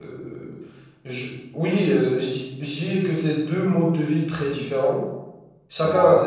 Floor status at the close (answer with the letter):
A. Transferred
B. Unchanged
B